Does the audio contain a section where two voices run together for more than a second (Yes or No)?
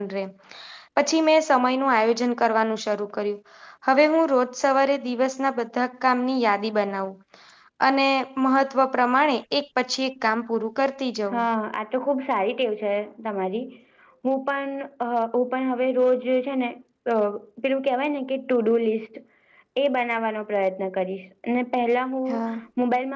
No